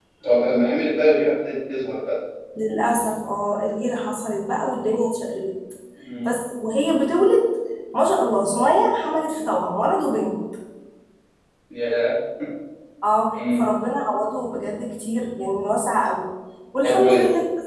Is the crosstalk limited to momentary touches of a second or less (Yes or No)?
Yes